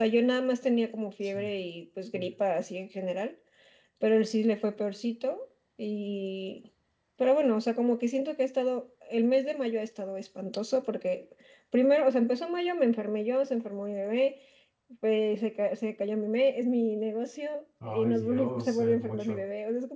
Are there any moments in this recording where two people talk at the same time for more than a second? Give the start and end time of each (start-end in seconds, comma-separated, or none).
17.9-19.4